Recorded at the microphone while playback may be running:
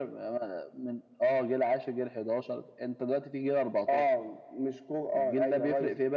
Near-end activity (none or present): none